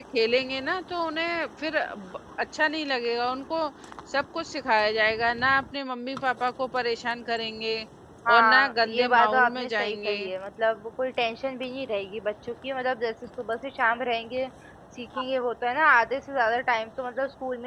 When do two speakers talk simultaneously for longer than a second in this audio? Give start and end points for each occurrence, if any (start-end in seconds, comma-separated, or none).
8.3-10.2